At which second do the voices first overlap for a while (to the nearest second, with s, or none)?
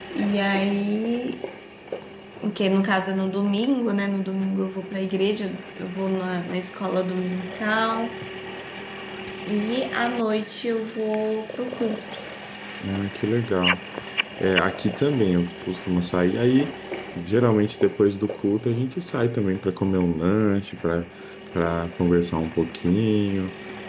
none